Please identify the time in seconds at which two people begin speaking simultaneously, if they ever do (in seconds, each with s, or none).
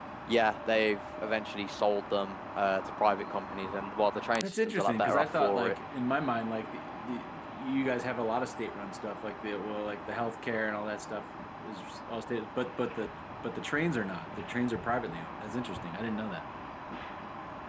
4.4 s